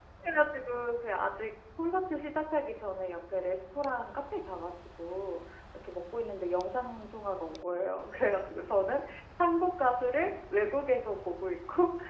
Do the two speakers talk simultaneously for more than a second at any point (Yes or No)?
No